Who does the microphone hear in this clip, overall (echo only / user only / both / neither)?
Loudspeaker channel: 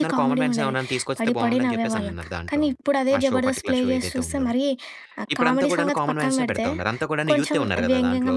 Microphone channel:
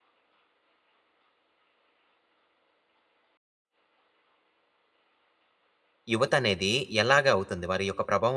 user only